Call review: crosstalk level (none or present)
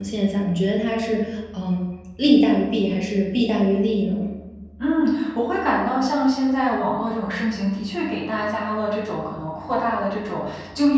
none